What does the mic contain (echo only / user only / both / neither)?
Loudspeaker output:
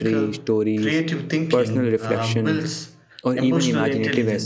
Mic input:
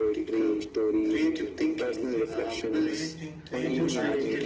both